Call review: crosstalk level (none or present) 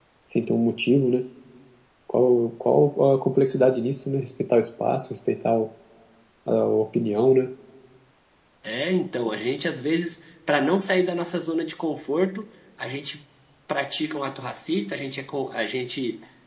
none